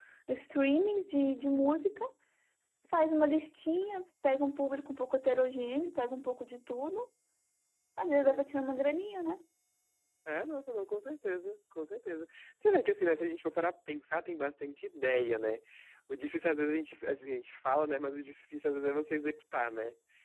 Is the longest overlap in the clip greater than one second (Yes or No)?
No